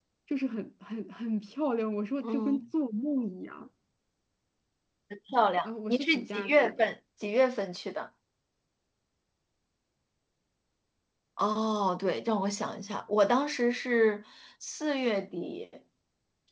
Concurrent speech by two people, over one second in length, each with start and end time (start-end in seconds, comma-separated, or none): 5.6-6.8